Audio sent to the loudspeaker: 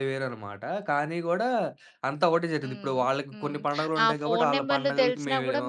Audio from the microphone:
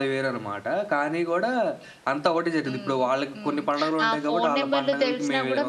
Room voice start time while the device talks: none

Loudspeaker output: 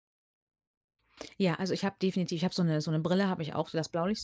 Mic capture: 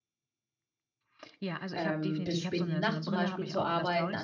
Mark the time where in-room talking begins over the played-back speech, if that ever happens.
2 s

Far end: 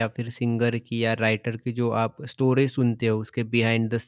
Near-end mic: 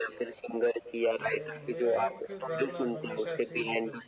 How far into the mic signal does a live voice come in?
1 s

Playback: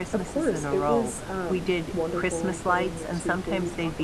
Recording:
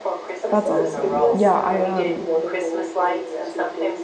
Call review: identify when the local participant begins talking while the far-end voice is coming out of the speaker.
0 s

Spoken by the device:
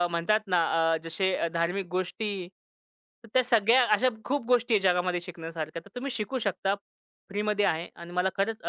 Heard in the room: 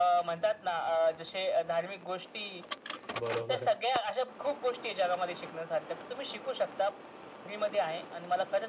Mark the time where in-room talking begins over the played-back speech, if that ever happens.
3 s

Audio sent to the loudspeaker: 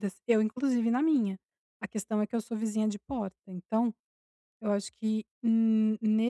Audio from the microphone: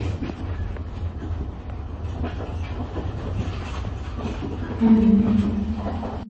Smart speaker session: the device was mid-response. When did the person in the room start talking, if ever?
5 s

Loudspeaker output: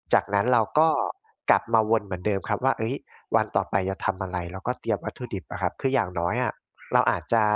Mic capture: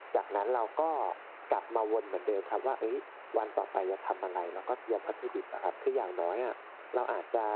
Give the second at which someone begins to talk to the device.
none

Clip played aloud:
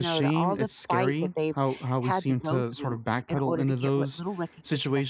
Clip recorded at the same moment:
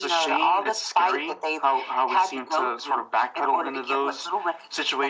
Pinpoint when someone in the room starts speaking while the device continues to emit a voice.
none

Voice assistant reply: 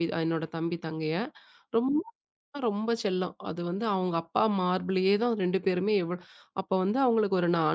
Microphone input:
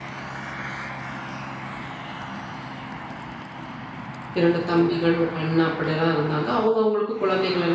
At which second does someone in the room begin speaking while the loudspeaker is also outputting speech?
4 s

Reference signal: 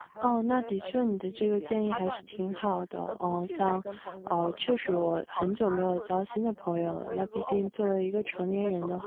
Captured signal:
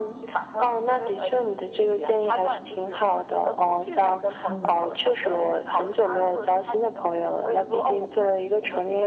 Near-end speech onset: 4 s

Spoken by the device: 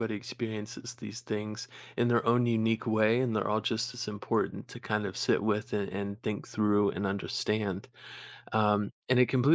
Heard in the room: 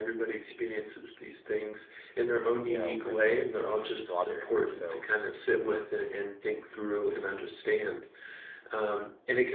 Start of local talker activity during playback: 3 s

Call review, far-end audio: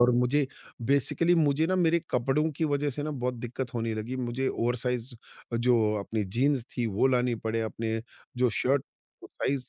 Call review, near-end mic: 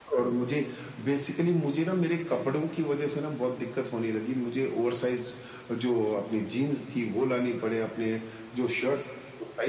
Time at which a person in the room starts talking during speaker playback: none

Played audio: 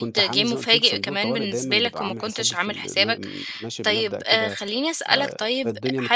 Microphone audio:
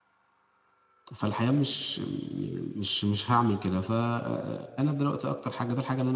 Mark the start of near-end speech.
1 s

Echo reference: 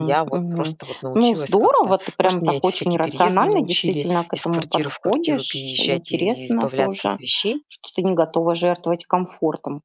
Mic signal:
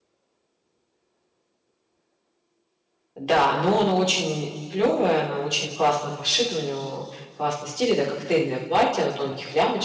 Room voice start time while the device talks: 3 s

